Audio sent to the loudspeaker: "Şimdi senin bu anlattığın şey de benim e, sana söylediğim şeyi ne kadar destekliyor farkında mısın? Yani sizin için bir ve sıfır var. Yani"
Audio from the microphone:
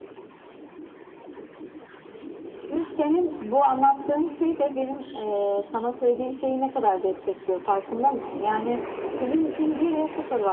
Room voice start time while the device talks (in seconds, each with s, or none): none